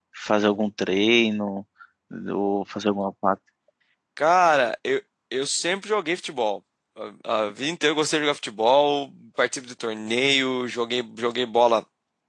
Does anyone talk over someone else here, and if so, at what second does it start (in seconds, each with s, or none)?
none